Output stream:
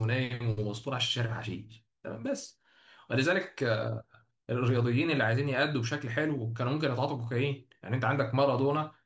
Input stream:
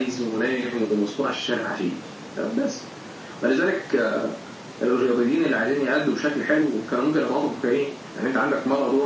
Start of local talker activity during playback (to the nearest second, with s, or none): none